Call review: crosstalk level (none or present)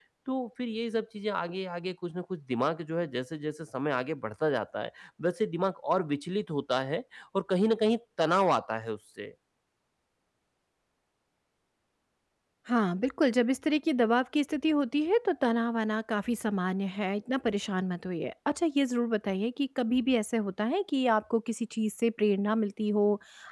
none